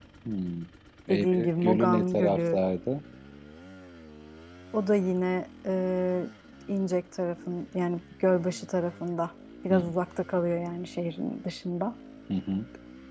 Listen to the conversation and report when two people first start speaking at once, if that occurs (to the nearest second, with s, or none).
1 s